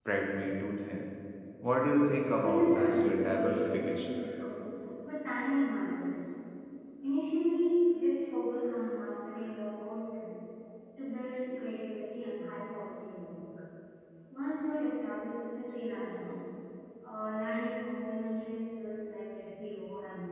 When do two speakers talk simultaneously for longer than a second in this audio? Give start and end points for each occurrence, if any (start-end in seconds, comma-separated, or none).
2.2-4.1